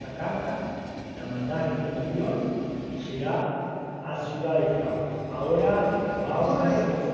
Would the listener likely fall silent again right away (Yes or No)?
No